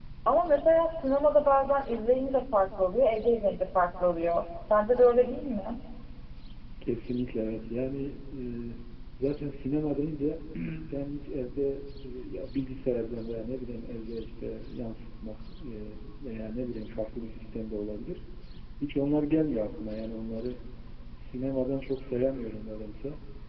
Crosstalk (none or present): none